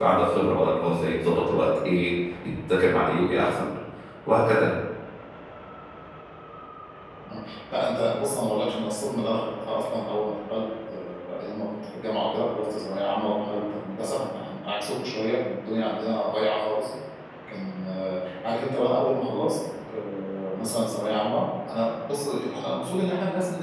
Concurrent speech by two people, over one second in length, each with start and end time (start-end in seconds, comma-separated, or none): none